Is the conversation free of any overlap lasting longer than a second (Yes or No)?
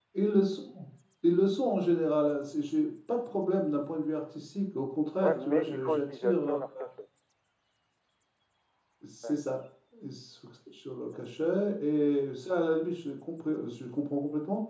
No